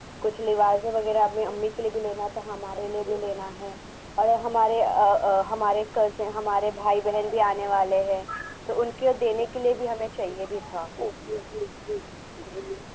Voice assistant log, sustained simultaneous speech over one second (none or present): none